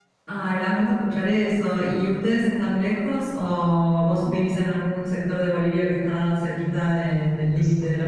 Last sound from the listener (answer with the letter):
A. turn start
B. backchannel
A